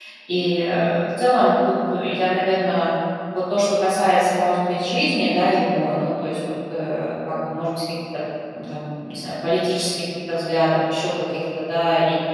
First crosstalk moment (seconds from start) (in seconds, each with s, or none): none